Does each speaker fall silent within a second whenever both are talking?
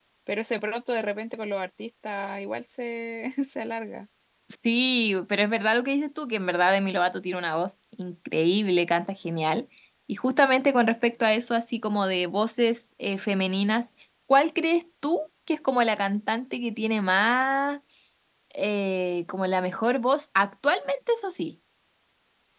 Yes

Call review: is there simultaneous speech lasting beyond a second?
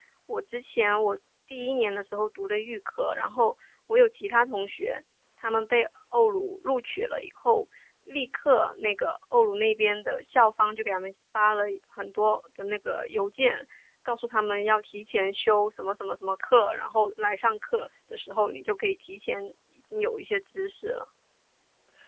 No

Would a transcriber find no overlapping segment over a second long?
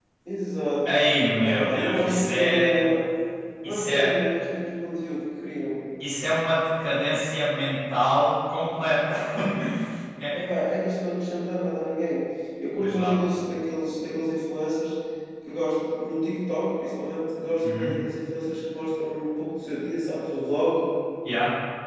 No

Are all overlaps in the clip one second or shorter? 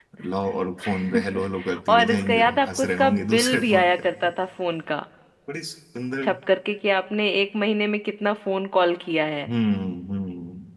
No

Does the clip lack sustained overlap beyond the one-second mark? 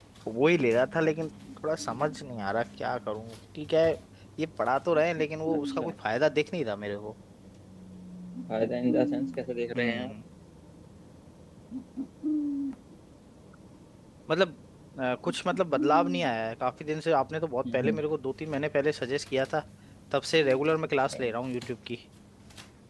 Yes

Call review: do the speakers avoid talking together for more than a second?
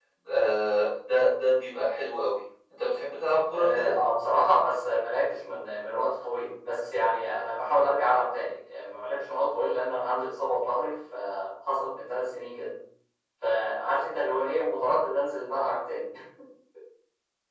Yes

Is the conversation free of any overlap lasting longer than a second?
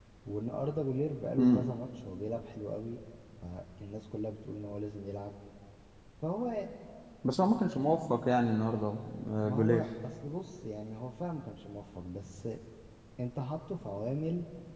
Yes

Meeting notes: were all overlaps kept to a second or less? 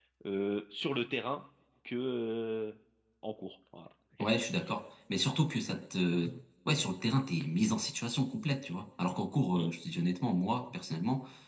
Yes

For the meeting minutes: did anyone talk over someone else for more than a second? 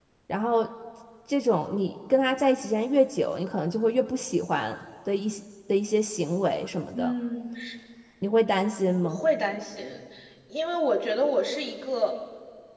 No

